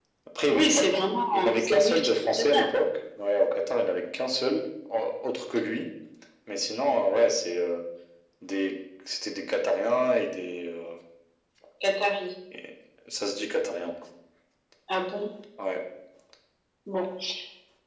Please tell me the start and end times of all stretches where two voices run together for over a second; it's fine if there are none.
1.3-2.6

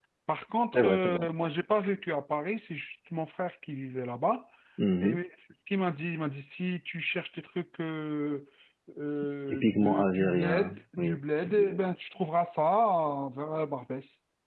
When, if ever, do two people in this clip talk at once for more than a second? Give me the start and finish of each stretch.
9.5-11.2

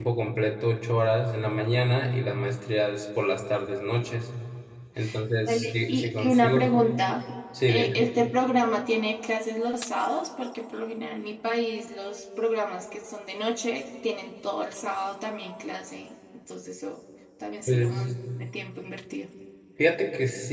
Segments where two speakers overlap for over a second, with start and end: 5.4-6.8

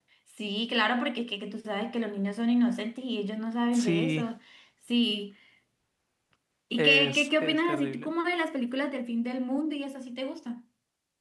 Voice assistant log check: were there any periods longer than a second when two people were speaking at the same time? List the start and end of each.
6.8-8.1

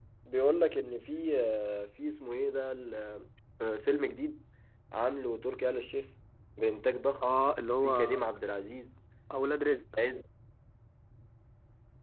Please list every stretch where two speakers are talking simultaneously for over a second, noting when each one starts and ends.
none

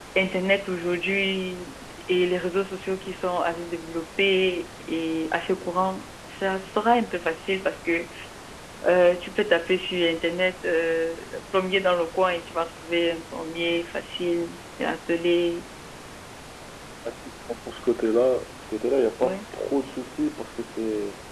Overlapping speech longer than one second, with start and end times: none

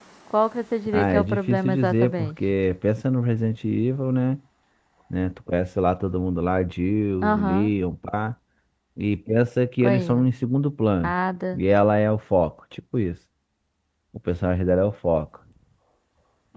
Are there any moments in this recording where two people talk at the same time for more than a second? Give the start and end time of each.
0.9-2.3

